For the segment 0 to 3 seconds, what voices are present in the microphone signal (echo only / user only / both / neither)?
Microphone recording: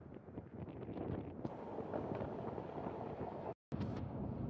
neither